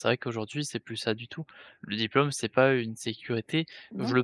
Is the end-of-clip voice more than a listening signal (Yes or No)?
No